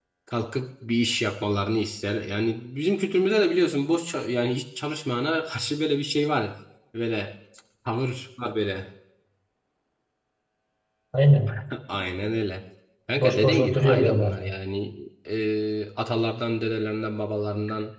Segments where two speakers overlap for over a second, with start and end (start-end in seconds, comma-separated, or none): 13.2-14.4